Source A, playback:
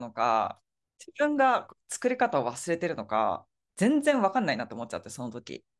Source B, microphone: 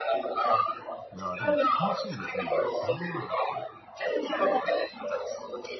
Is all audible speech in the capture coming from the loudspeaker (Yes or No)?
No